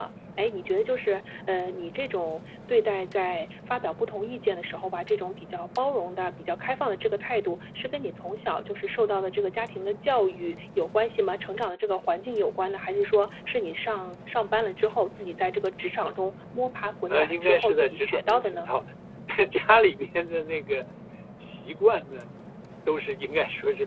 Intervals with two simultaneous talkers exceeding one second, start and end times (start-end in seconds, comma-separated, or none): 17.1-18.7